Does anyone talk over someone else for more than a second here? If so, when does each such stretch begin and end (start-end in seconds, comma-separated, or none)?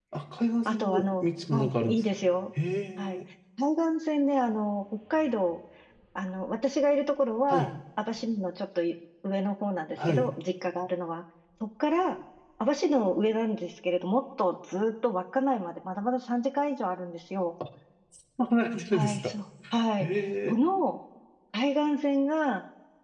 0.6-2.0